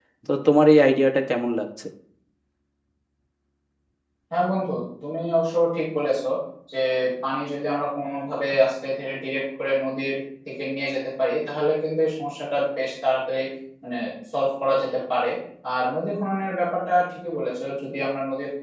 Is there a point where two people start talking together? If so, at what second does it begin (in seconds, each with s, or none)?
none